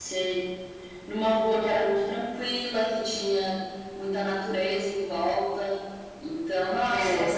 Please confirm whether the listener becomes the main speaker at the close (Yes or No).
No